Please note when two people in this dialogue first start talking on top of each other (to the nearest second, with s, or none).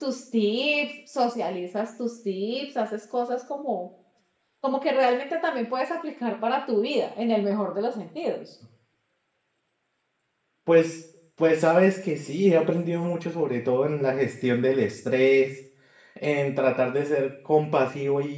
none